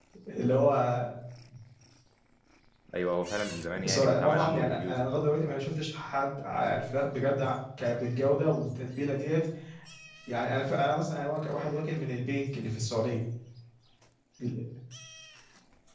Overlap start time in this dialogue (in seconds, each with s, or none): 3.8 s